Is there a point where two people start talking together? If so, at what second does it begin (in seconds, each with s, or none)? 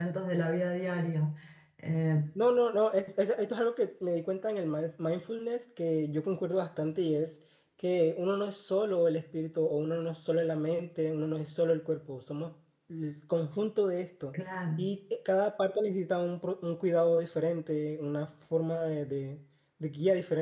none